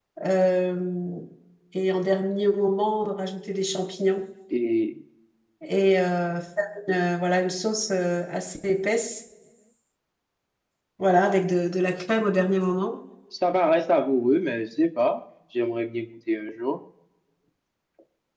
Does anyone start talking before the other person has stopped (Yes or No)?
No